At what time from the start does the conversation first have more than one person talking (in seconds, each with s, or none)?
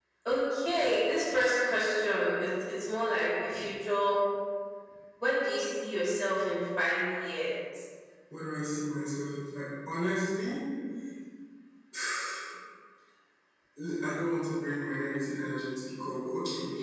none